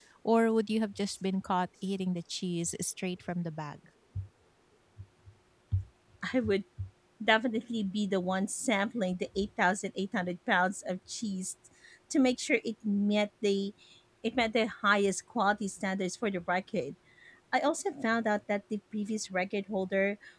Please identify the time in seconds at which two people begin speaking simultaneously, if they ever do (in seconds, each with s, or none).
none